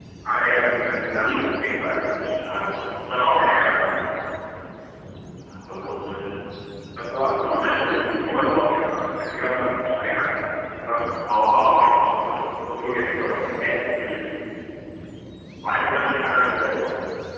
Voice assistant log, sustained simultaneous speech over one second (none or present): present